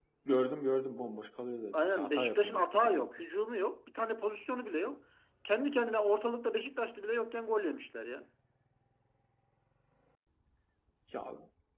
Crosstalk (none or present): present